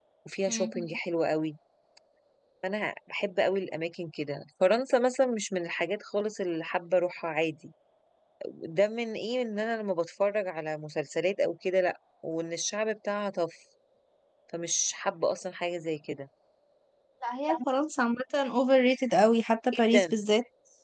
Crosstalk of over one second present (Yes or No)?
No